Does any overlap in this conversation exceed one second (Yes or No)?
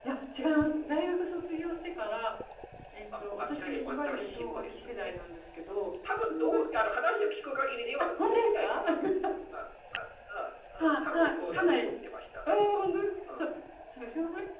Yes